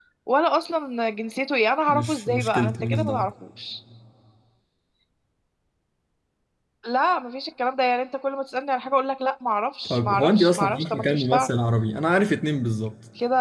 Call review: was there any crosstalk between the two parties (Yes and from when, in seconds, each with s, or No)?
Yes, from 1.9 s